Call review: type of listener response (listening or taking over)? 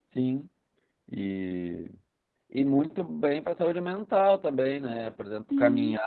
listening